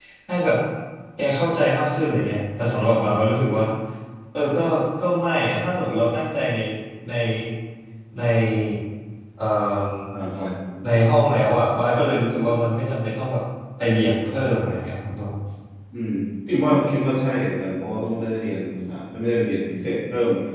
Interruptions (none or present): none